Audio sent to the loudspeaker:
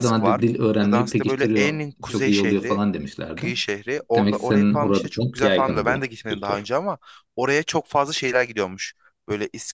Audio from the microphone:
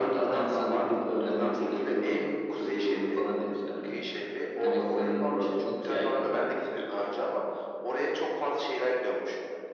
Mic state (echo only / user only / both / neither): echo only